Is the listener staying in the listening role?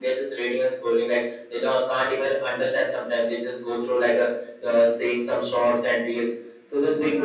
No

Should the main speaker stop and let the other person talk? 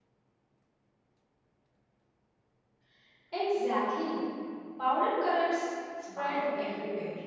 Yes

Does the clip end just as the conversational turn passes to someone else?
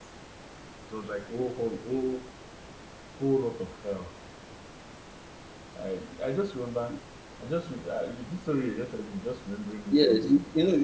Yes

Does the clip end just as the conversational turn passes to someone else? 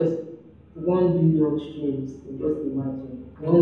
Yes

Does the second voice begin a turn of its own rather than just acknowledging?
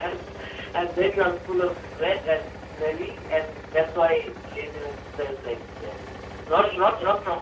No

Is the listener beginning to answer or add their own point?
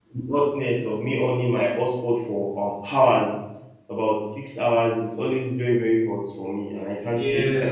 Yes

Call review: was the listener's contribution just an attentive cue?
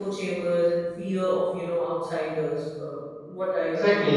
No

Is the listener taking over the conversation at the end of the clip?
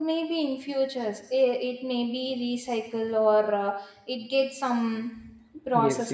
Yes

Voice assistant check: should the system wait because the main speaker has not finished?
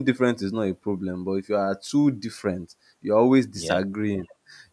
Yes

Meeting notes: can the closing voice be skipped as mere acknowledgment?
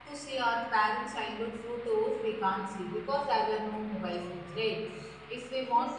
Yes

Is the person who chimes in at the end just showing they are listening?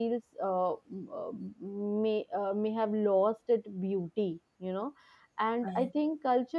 Yes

